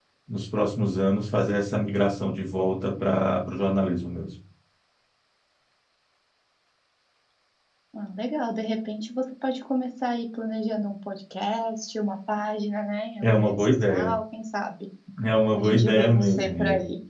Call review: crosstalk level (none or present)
present